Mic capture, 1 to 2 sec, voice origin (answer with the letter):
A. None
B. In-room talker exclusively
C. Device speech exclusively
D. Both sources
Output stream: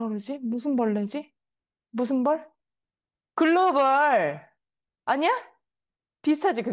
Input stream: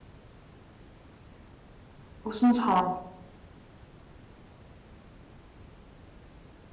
A